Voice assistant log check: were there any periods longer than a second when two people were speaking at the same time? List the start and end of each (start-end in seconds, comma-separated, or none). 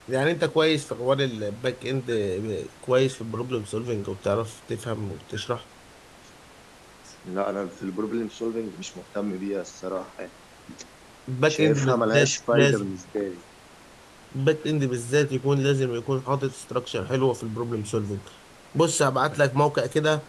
11.5-12.9